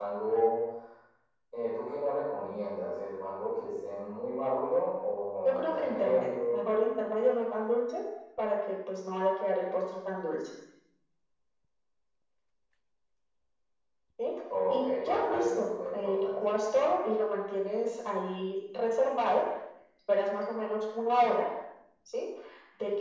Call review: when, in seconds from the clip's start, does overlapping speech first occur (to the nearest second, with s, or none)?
5 s